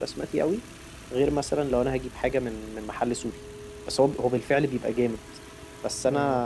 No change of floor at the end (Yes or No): Yes